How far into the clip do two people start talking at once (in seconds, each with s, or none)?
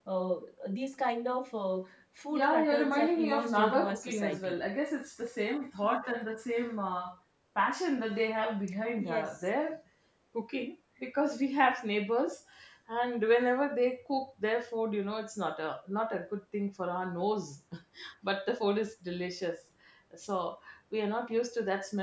2.3 s